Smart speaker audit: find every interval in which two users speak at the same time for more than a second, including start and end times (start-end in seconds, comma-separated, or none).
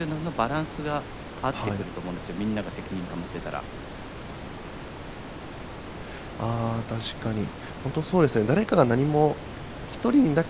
none